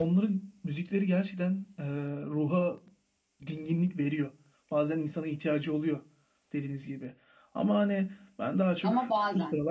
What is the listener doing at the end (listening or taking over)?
listening